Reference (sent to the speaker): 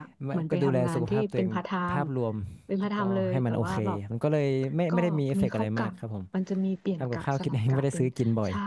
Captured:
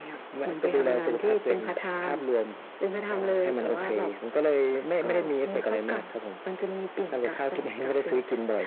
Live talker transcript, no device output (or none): none